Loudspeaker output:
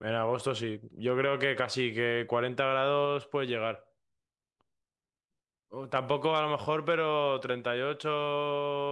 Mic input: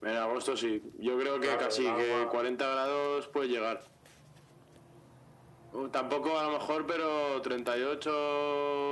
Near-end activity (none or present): present